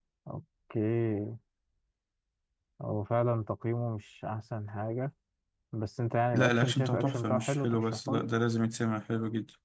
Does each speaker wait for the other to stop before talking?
No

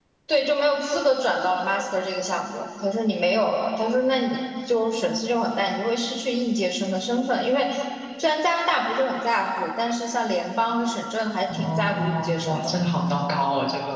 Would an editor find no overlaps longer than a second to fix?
No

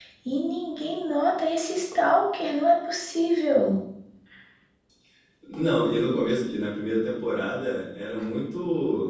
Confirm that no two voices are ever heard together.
Yes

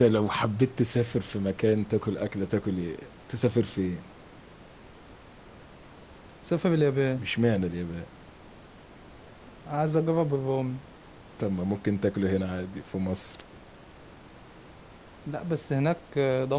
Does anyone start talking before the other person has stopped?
No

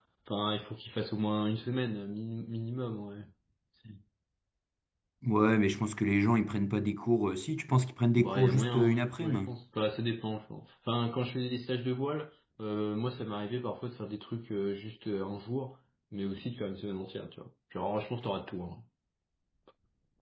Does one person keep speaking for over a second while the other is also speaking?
Yes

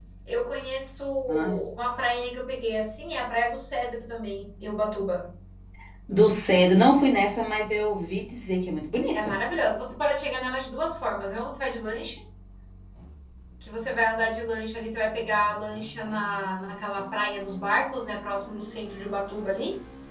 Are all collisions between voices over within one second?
Yes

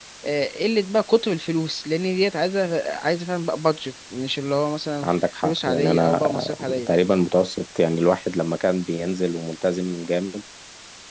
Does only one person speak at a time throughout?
No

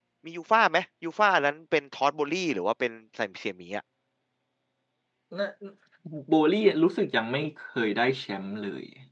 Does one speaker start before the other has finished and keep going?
No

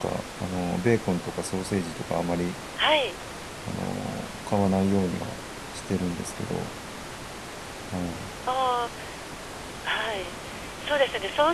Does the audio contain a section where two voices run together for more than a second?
No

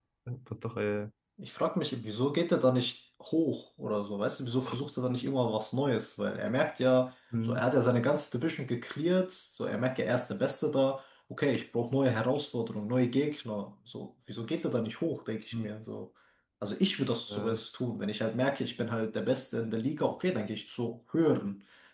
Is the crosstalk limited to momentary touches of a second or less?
Yes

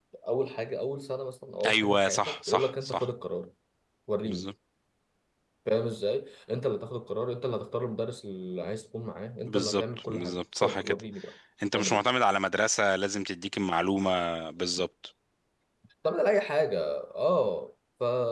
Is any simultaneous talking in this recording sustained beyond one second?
Yes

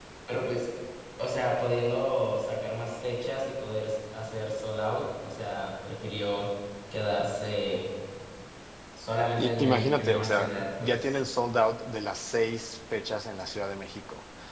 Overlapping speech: Yes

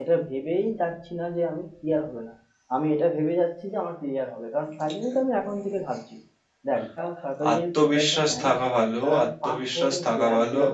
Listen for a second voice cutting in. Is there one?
Yes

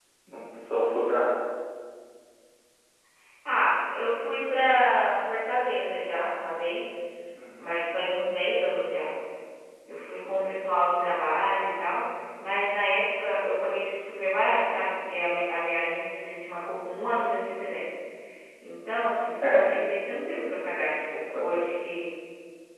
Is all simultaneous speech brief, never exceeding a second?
Yes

